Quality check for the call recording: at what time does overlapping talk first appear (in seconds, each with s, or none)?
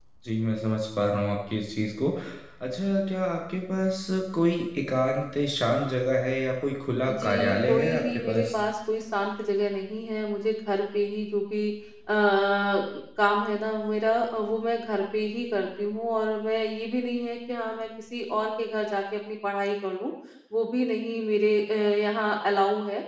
7.1 s